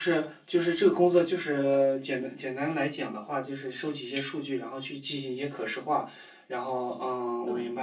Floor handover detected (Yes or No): No